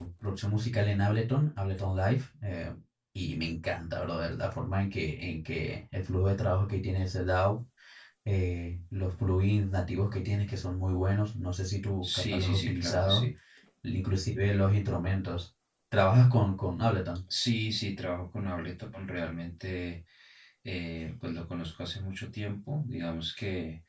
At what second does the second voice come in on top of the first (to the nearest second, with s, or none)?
12 s